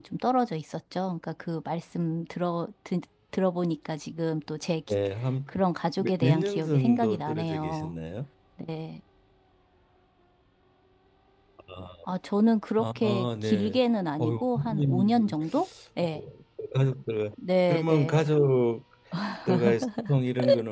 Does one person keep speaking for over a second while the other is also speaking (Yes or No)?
Yes